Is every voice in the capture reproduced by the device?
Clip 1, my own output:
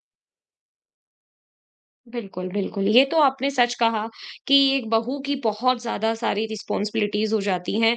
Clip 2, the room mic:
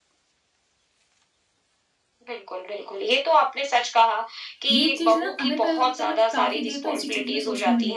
No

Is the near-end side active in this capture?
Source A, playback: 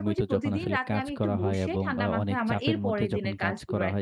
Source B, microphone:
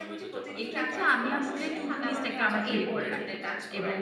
Yes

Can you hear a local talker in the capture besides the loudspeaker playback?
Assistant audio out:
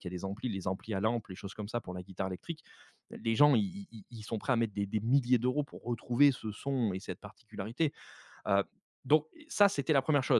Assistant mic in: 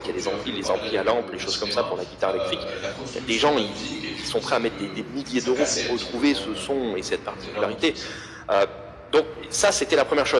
Yes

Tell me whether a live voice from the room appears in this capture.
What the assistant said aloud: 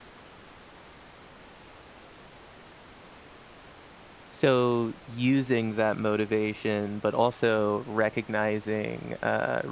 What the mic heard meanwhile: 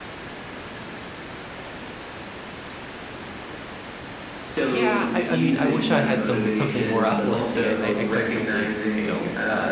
Yes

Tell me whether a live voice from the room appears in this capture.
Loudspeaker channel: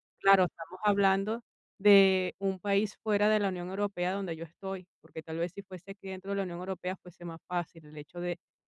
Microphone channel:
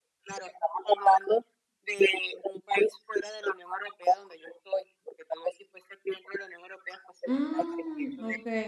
Yes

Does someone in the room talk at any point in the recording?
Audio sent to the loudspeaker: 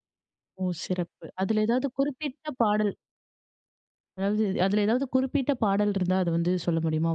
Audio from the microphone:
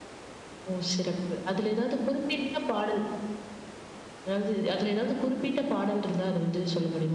No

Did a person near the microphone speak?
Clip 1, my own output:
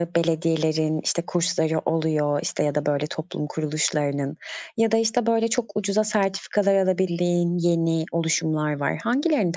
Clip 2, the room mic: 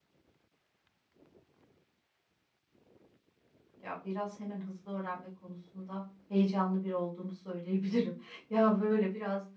Yes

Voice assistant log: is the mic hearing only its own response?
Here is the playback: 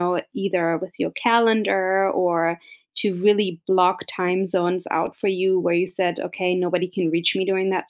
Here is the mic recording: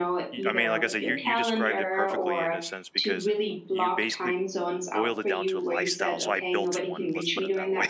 No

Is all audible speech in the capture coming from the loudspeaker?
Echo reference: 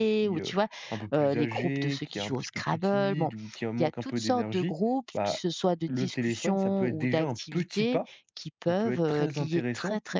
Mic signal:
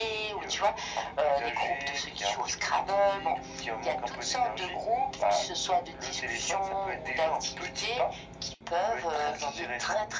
Yes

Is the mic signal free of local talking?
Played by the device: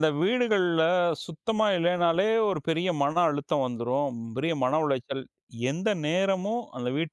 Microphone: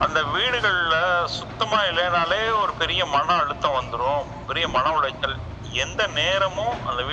Yes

